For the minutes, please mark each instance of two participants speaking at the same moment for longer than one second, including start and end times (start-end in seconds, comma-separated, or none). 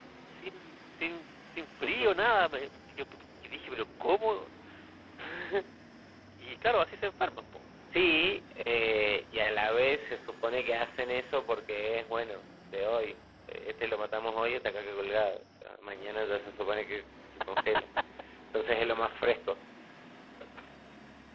none